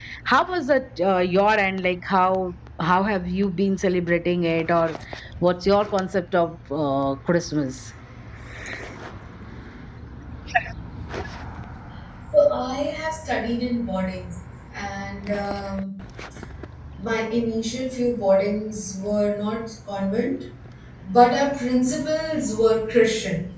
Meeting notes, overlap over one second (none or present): none